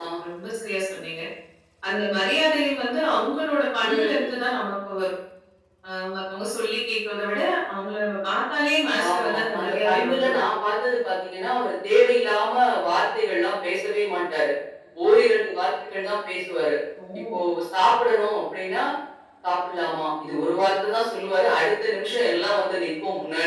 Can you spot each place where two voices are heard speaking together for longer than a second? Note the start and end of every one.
9.1-10.4

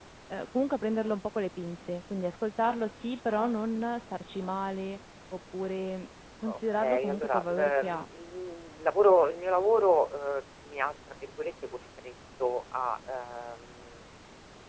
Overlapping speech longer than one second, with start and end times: 6.5-8.0

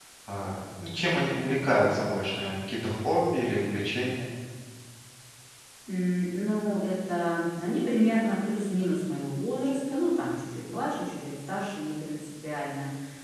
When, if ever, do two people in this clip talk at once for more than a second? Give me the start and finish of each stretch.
none

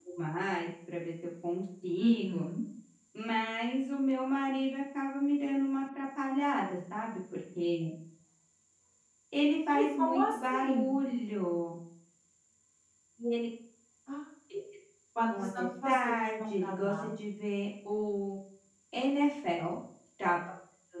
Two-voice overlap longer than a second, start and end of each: 9.7-11.0, 15.4-17.1

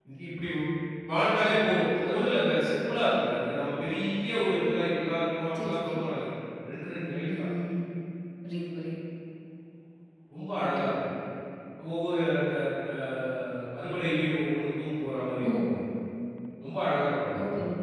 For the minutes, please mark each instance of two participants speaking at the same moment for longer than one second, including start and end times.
none

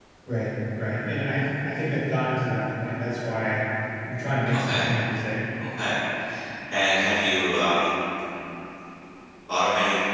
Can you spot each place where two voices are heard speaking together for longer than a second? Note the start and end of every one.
none

